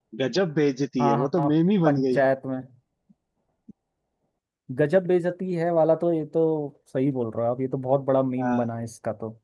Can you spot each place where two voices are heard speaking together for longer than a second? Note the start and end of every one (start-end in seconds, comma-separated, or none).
none